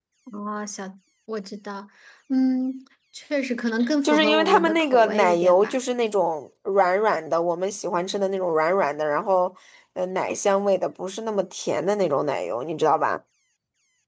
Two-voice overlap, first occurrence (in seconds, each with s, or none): 4.0 s